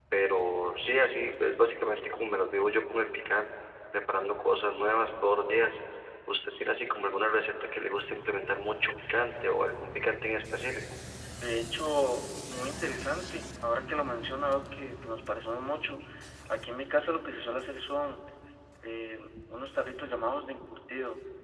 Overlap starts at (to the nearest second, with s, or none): none